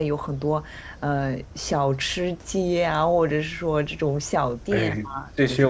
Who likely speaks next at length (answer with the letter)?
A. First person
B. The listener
B